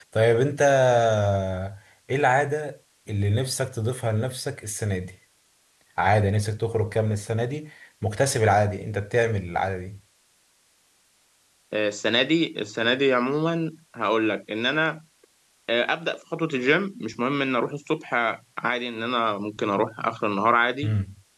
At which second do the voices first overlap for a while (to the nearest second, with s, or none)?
none